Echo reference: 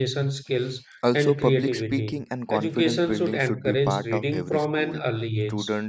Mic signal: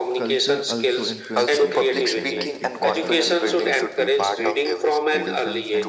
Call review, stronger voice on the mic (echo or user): echo